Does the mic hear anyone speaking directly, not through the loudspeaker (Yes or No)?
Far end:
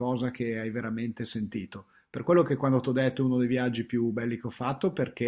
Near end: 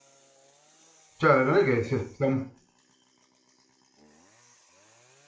Yes